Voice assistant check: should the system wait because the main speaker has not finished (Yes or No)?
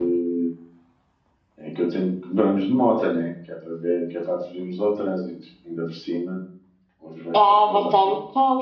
No